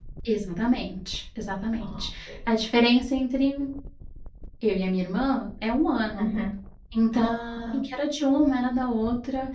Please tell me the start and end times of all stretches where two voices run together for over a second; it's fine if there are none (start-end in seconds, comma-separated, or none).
none